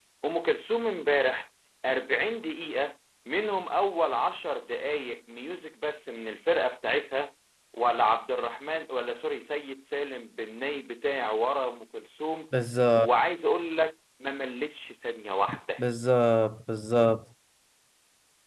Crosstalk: none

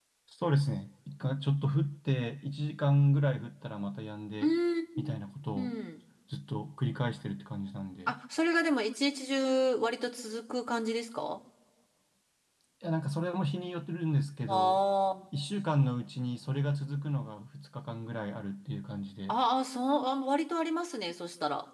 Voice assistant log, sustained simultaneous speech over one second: none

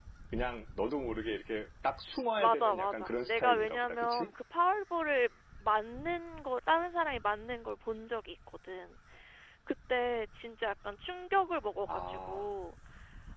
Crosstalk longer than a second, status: present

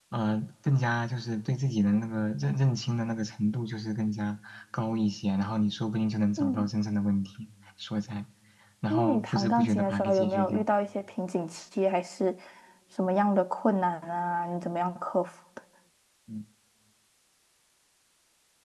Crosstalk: present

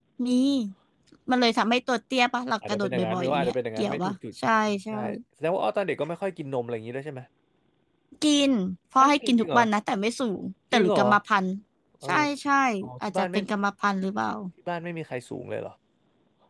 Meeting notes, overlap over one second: present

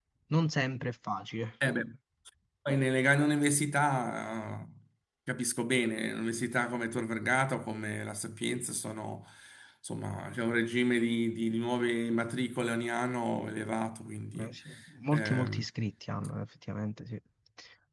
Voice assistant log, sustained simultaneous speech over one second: none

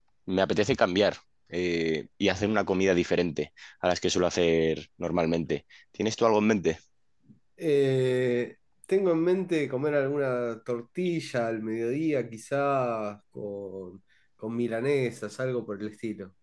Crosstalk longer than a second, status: none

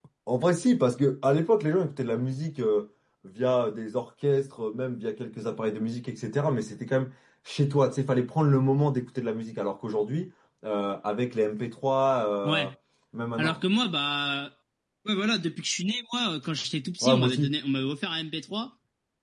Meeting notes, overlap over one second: none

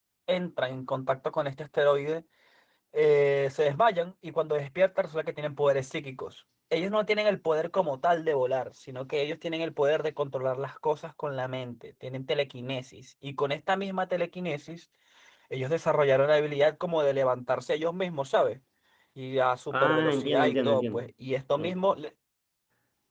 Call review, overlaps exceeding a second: present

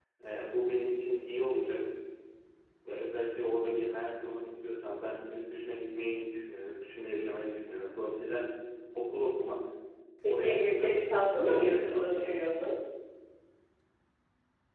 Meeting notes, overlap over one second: present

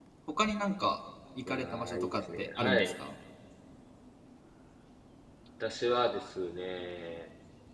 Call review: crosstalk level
present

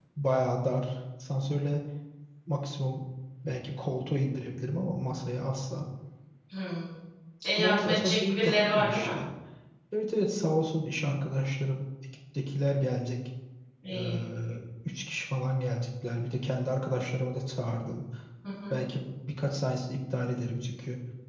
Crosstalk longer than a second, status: present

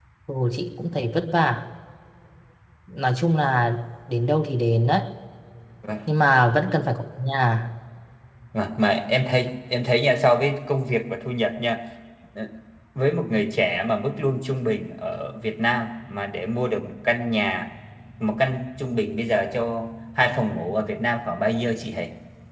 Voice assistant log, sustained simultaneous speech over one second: none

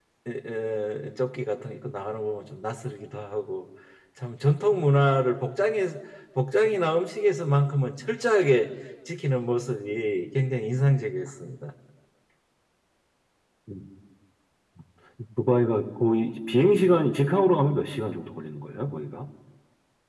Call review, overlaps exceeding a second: none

